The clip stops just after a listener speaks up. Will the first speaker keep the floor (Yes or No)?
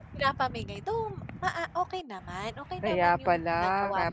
No